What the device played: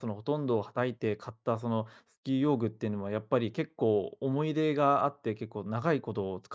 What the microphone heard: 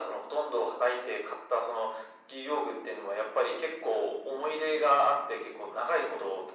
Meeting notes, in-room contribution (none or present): none